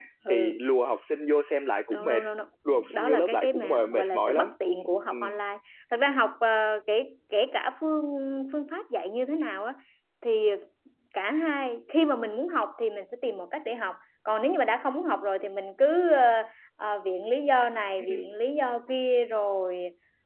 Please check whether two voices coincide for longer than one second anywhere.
Yes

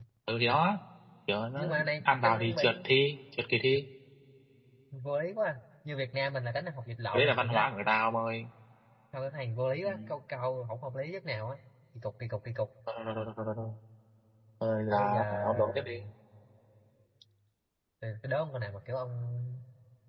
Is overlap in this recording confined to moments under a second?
No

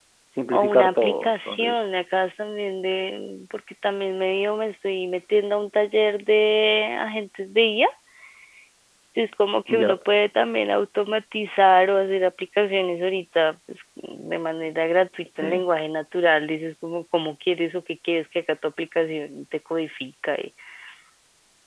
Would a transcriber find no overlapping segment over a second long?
No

